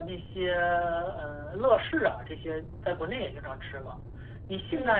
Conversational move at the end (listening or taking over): listening